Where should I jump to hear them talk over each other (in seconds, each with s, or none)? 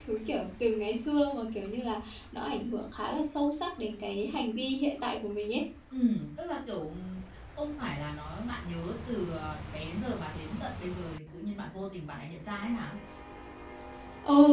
none